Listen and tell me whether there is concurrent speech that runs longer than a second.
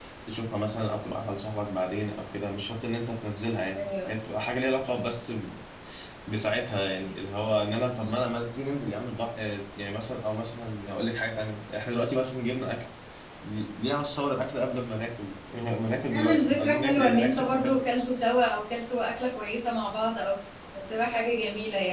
Yes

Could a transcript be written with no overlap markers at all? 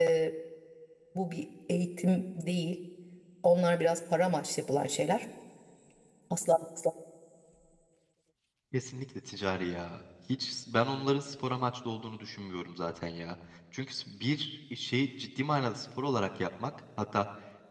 Yes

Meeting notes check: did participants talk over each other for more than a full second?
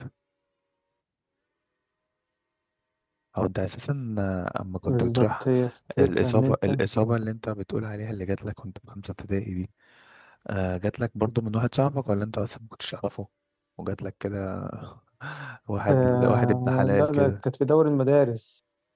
Yes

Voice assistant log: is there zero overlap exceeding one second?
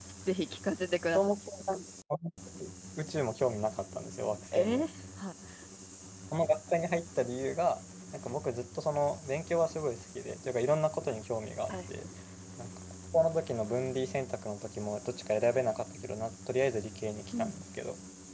Yes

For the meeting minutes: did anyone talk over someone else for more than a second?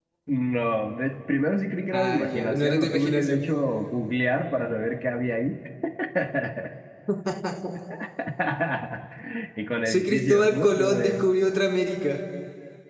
Yes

